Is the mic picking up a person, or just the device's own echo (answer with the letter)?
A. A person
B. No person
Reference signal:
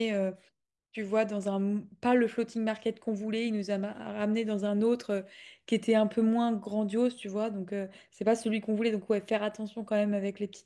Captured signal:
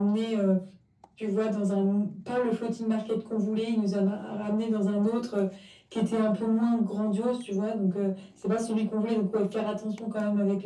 B